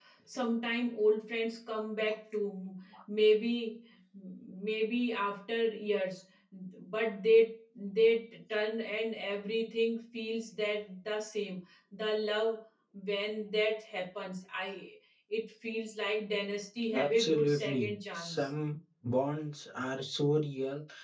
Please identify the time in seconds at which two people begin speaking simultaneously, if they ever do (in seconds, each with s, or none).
16.8 s